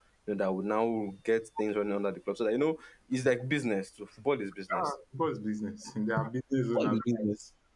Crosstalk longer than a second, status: none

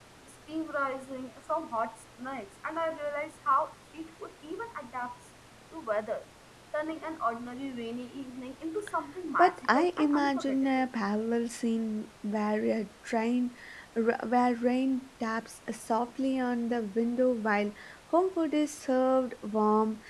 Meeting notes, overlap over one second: present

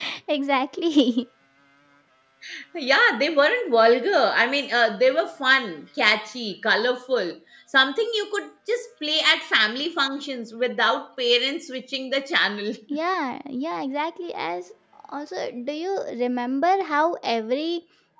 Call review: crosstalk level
none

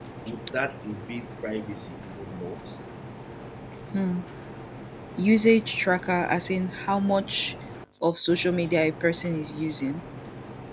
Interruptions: none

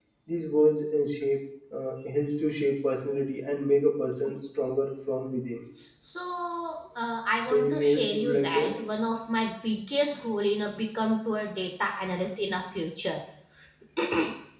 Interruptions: present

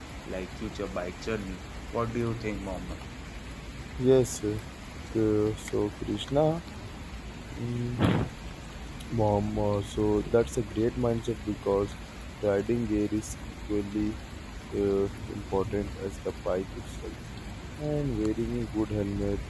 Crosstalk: none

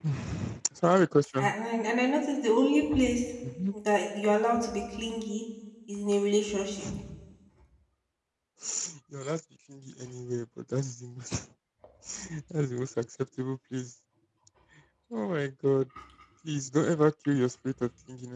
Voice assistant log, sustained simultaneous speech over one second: none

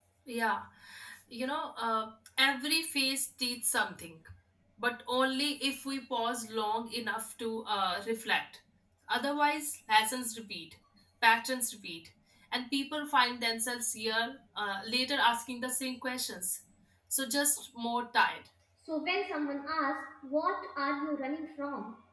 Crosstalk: none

